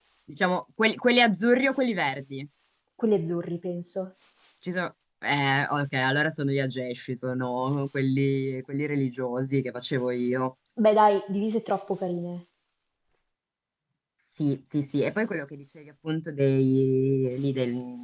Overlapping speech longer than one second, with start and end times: none

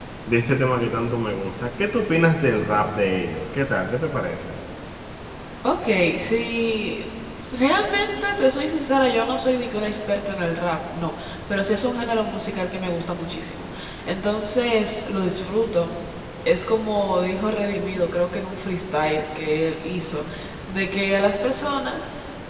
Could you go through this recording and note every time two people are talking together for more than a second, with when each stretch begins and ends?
none

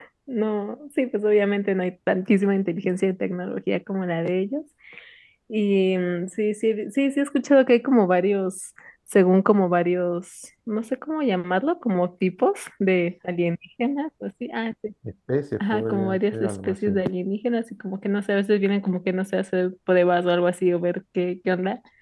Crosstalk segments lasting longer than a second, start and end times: 15.6-16.9

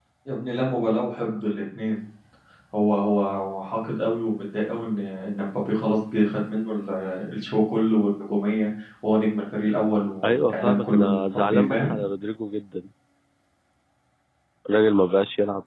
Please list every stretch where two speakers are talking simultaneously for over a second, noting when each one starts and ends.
10.2-11.9

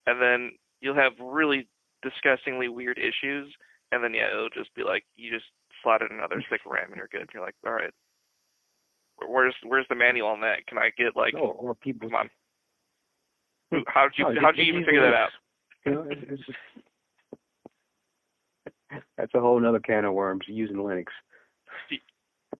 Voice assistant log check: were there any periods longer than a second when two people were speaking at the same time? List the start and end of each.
13.7-15.3

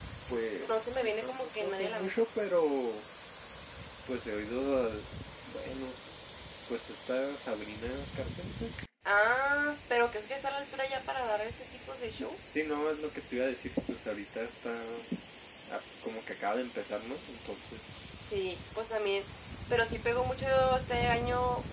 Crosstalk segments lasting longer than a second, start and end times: 0.7-2.2

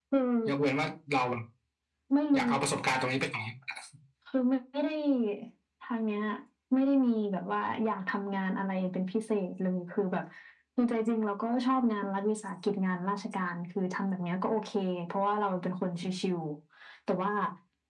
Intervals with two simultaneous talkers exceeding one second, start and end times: none

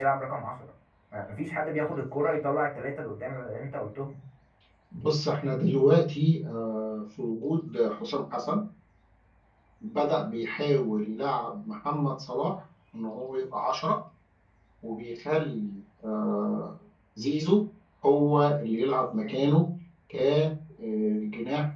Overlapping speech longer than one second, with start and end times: none

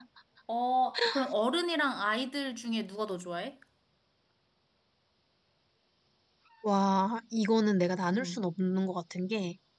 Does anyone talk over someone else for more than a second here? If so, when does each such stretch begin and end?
none

